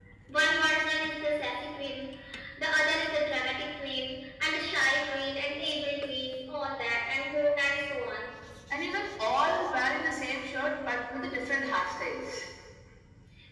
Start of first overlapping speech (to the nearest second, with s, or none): none